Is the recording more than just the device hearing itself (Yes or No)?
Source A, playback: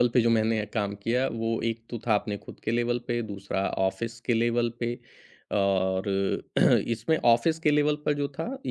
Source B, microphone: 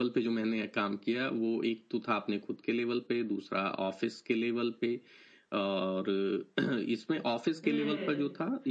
Yes